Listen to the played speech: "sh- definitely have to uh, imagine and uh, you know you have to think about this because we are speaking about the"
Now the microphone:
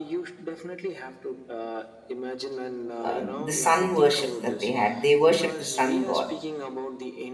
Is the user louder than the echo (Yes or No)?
Yes